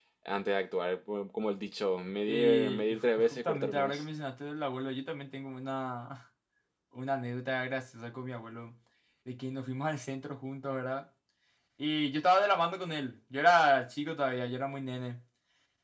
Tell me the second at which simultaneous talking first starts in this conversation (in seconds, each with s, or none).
2.3 s